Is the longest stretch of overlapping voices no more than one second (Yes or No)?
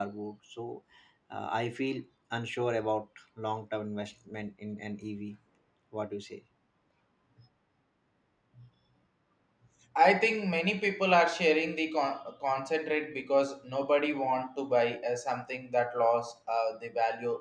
Yes